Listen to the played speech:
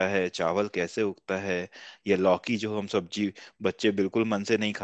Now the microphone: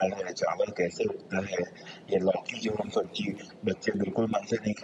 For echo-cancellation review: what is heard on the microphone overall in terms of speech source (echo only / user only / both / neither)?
echo only